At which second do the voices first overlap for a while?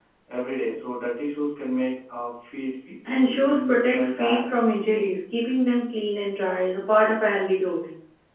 3.0 s

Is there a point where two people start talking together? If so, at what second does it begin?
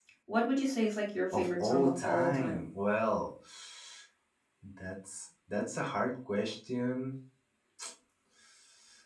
1.3 s

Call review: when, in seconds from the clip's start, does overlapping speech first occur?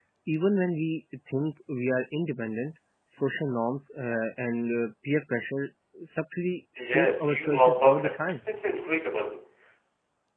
6.8 s

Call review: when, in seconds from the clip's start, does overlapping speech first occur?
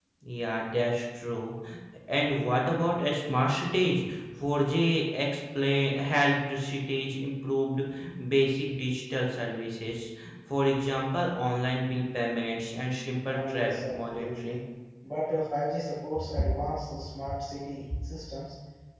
13.3 s

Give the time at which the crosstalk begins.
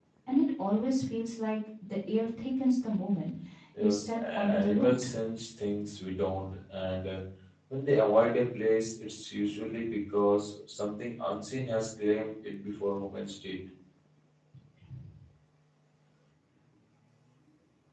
3.8 s

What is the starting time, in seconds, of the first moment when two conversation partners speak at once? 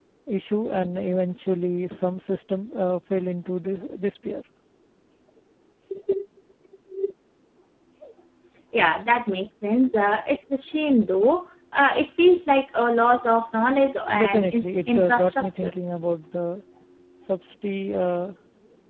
14.2 s

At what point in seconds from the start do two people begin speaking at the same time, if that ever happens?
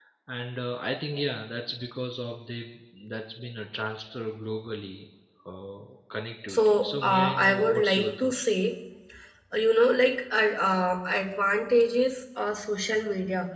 6.5 s

